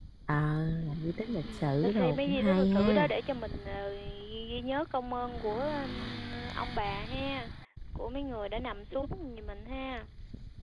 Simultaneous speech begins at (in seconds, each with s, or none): 1.4 s